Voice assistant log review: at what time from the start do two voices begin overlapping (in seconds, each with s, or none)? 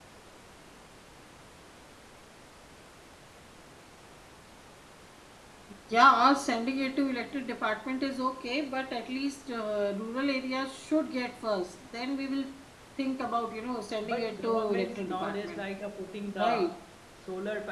14.0 s